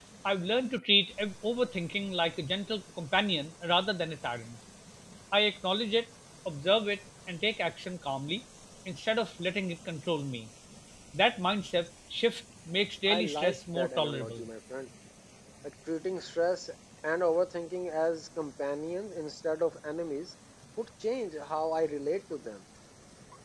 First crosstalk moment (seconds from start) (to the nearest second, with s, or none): 13 s